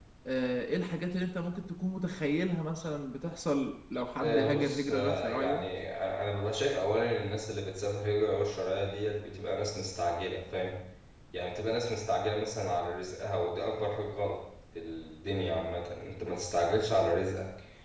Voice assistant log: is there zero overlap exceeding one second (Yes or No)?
No